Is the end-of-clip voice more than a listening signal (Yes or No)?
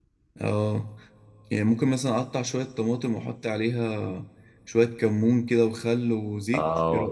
Yes